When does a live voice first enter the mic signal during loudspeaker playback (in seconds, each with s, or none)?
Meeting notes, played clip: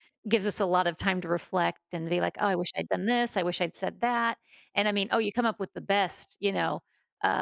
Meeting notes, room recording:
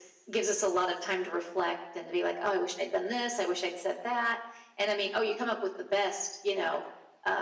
none